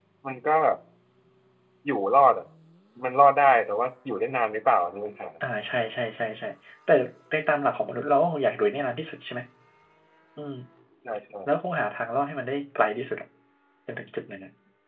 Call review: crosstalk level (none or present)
none